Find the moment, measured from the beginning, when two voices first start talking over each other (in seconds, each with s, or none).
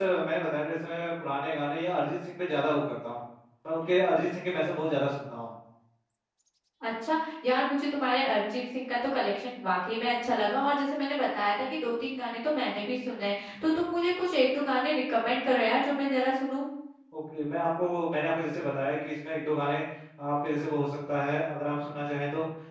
none